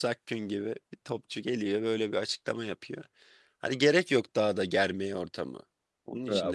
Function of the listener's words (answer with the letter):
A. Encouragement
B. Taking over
B